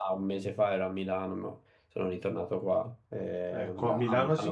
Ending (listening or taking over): taking over